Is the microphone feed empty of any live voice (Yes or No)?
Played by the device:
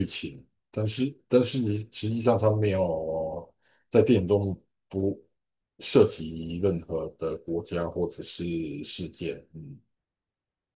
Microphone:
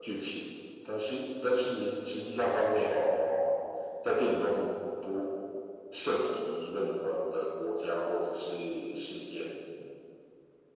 Yes